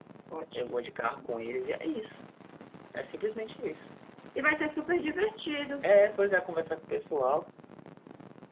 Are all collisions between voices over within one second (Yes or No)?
Yes